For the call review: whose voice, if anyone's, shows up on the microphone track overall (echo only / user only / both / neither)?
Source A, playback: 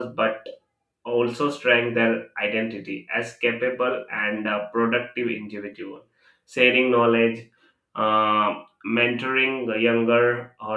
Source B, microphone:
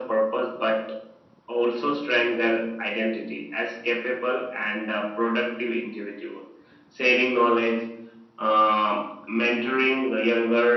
echo only